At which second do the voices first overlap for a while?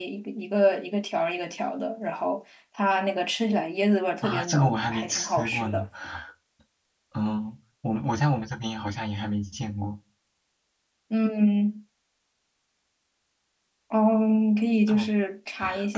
4 s

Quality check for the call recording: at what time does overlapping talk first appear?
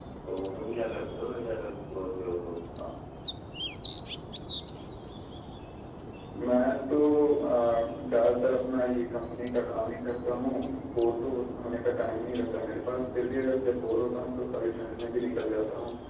none

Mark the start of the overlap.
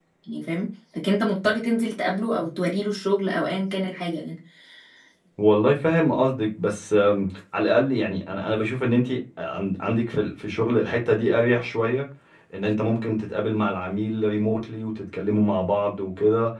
none

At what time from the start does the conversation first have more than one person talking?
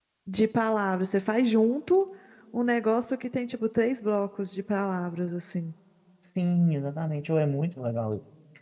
none

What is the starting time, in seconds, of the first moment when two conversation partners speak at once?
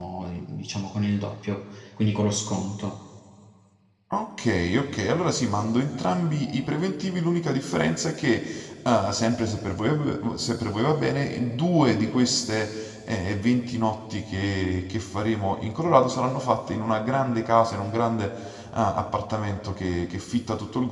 none

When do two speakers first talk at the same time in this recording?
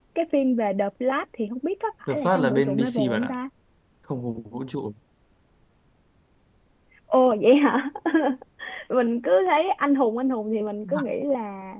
2 s

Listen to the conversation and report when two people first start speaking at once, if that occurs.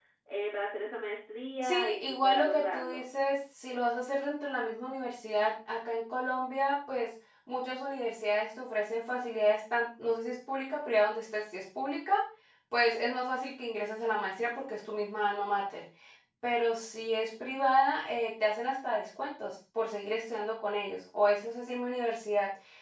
2 s

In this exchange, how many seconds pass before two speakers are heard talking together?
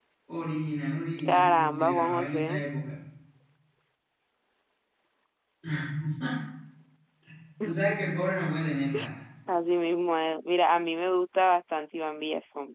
1 s

